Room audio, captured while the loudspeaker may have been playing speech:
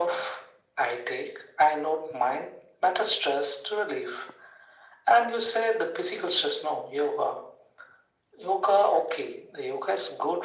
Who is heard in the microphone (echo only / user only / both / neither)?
echo only